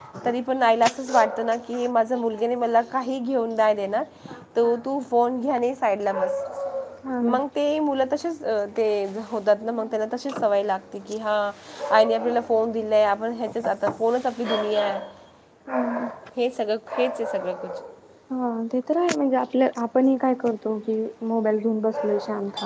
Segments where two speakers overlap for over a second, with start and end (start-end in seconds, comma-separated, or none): none